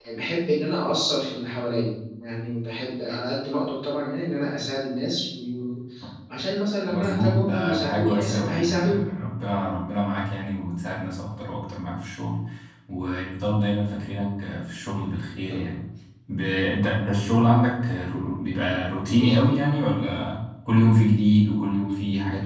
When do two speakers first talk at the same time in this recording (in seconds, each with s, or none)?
6.9 s